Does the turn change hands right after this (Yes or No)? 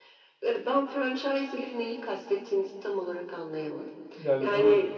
Yes